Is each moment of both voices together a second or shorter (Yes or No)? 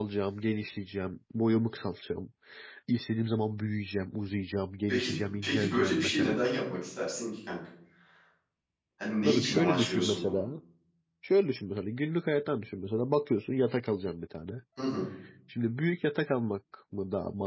No